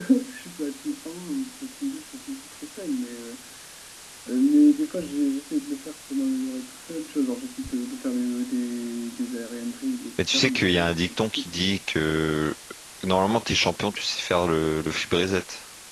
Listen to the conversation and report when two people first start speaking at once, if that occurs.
10.2 s

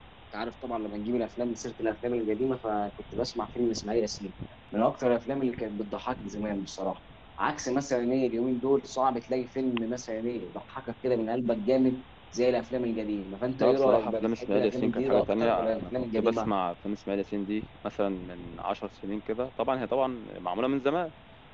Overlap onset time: 13.6 s

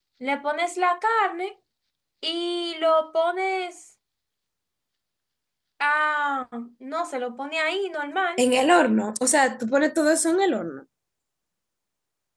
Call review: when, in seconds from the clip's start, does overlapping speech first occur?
none

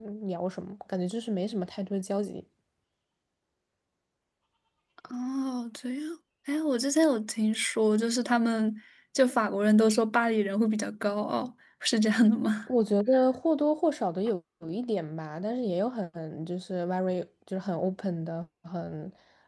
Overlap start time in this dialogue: none

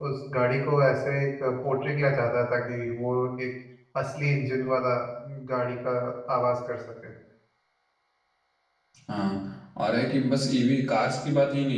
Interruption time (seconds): none

